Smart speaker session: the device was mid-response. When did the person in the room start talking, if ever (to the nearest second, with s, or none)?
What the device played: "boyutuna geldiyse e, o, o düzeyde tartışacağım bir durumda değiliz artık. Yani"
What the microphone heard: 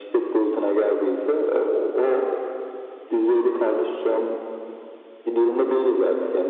none